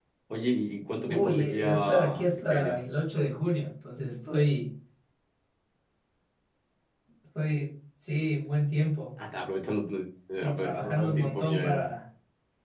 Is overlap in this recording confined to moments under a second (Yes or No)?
No